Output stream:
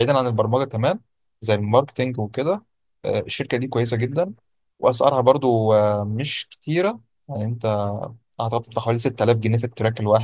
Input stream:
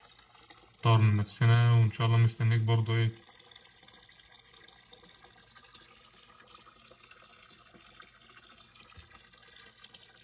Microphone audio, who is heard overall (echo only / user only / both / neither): user only